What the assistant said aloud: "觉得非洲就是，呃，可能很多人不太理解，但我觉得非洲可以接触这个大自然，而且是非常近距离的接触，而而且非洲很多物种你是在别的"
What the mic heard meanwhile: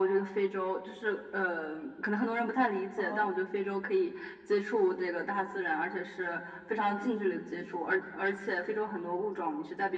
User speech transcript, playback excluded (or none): 好，